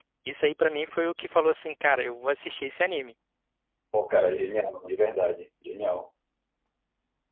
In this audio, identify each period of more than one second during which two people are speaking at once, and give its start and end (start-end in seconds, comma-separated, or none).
none